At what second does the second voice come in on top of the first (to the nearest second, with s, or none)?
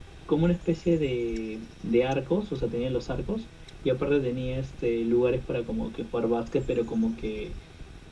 none